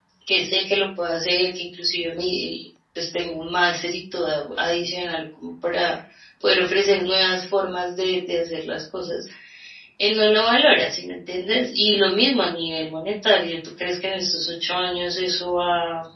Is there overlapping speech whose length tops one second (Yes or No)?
No